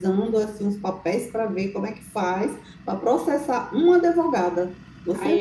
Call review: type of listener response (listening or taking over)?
taking over